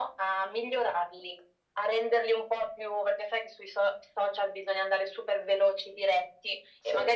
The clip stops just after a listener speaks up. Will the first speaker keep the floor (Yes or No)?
Yes